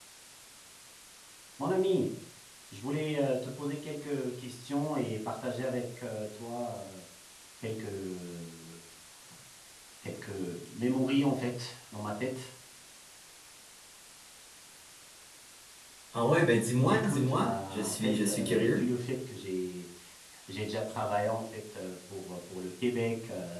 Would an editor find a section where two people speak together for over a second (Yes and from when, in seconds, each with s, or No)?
Yes, from 16.9 s